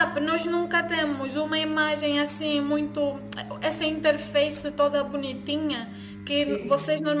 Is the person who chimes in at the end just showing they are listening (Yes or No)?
Yes